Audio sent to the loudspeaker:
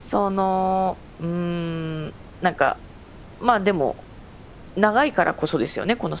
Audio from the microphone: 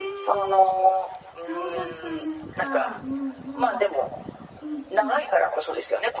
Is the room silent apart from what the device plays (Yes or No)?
No